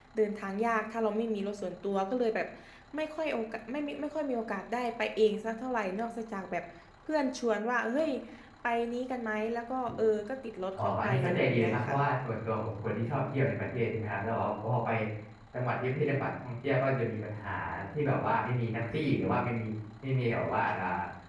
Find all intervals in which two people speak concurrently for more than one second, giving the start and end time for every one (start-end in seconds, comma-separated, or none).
10.8-11.9